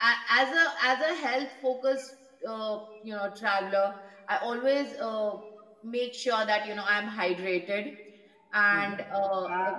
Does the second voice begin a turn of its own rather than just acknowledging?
Yes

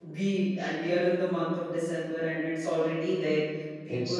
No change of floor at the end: Yes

